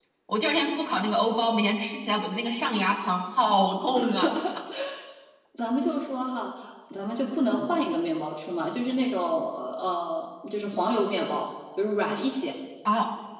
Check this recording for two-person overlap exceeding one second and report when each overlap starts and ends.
none

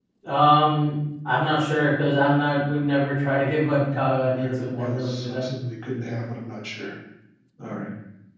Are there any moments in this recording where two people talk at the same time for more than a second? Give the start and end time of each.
4.2-5.5

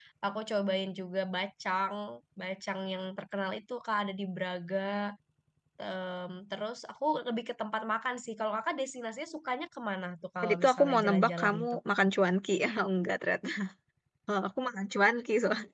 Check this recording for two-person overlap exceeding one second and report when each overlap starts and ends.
10.4-11.8

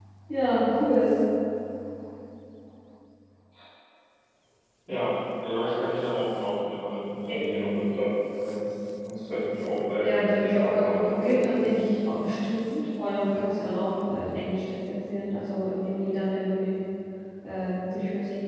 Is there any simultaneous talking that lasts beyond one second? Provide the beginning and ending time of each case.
10.0-11.8

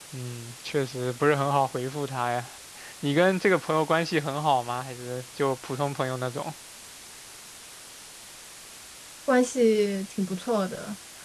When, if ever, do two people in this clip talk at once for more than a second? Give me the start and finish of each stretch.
none

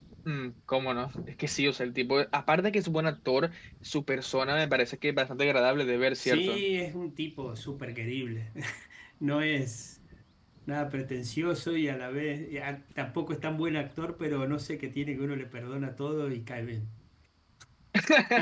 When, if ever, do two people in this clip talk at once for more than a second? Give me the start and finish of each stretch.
none

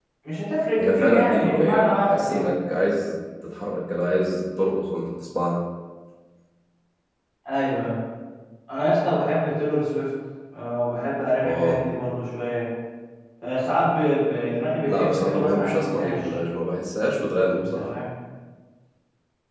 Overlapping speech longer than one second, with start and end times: 0.8-2.4, 14.9-16.4

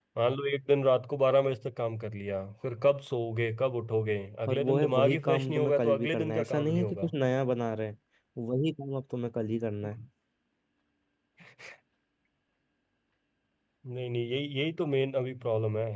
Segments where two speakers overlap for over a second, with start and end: 4.5-7.1

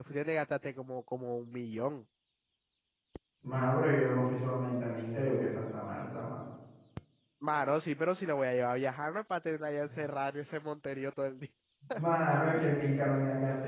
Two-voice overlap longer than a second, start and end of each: none

